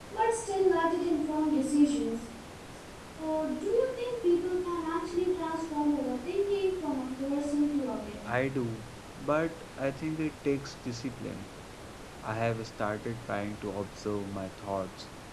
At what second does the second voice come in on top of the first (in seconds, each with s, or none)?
none